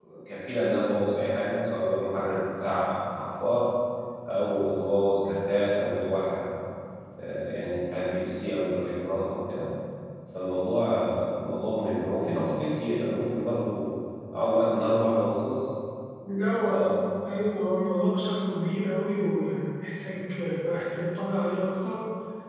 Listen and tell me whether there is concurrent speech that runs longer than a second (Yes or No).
No